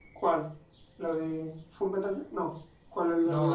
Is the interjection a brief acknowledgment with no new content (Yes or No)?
No